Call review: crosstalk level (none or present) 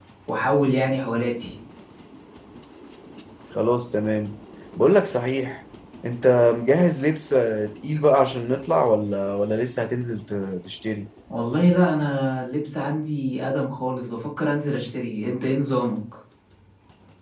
none